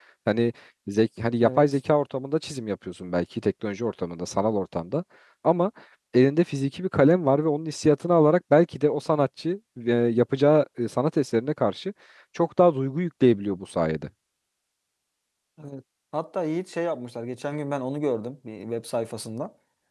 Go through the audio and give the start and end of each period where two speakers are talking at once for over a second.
none

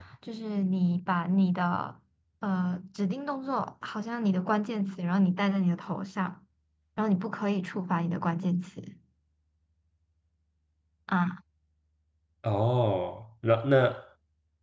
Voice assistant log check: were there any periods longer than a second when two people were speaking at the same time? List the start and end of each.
none

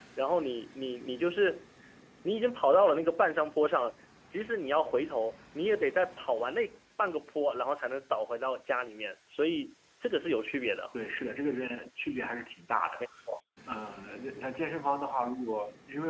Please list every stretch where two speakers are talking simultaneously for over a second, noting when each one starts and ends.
none

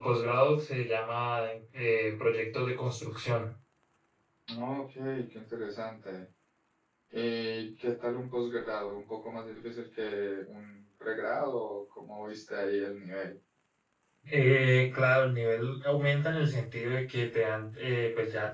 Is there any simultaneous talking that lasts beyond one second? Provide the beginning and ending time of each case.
none

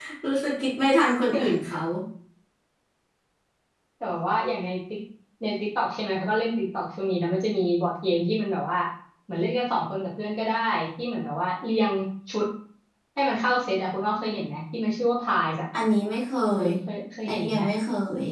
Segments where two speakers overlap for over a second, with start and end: none

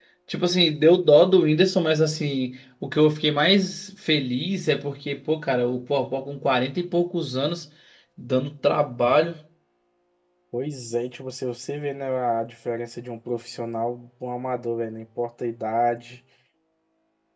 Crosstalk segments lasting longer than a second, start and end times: none

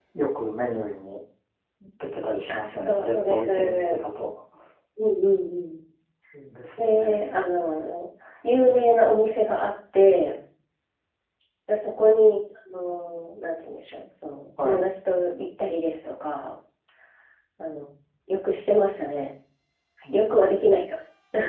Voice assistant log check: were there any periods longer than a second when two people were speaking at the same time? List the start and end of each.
2.5-4.0

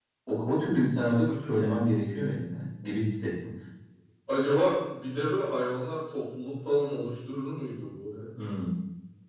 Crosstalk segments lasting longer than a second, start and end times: none

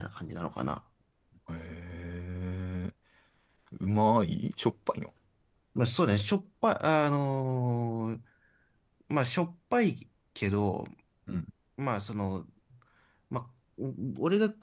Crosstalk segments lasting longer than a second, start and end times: none

